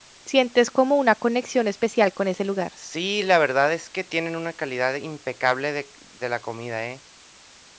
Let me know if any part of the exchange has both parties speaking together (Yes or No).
No